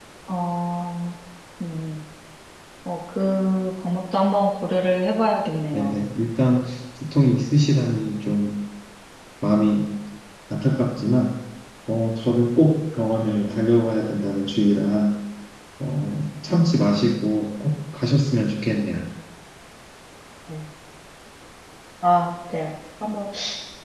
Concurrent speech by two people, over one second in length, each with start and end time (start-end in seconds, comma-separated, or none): none